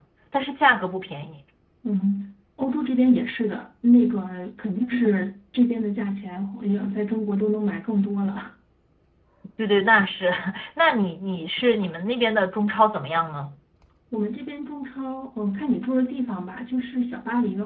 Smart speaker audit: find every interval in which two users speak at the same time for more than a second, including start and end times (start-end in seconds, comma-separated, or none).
none